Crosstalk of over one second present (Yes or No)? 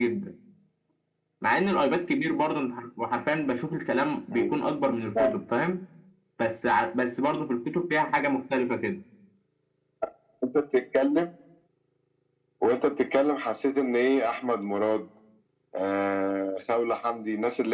No